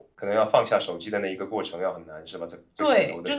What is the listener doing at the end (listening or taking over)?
taking over